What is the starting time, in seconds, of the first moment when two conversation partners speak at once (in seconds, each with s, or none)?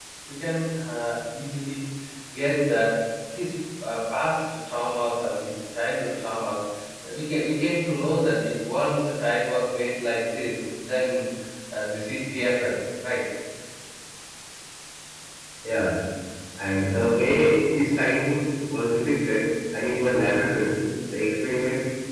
none